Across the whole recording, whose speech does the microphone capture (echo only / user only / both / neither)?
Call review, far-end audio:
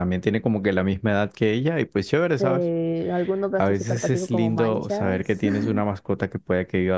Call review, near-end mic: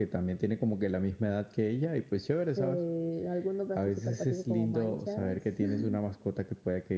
echo only